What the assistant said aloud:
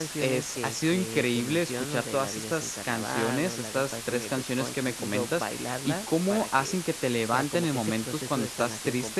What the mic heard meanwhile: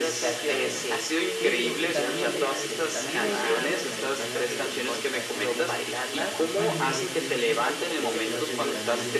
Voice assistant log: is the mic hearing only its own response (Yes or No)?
No